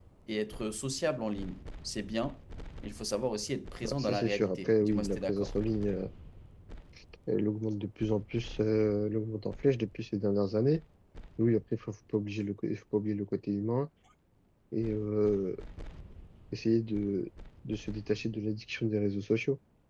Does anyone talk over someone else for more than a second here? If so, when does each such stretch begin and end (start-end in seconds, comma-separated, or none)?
3.8-5.5